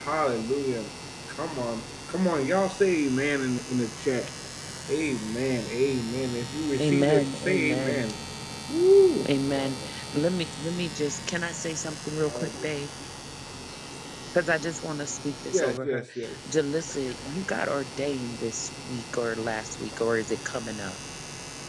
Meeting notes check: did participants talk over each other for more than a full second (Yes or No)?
Yes